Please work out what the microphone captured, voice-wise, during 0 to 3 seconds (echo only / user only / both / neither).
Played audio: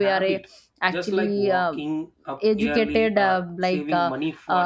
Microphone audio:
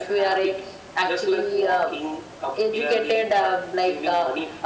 echo only